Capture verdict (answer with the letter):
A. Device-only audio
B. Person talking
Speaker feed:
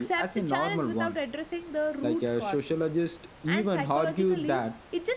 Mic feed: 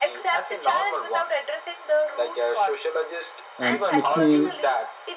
B